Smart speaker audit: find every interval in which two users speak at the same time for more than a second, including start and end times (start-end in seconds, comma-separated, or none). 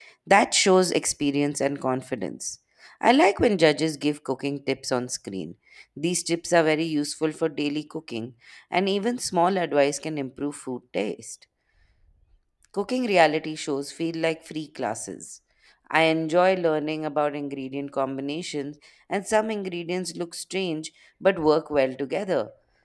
none